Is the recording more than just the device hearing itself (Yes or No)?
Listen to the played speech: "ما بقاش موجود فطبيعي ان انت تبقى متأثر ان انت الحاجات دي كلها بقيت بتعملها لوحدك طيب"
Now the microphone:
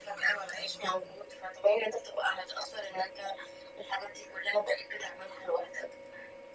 No